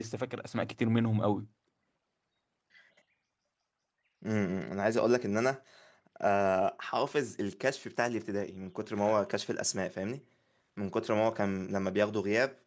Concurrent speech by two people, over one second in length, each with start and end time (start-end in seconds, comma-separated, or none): none